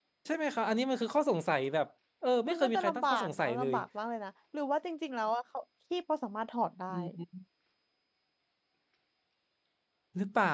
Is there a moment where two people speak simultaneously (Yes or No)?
Yes